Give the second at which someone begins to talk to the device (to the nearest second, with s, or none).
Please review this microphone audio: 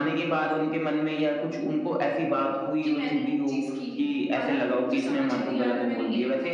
3 s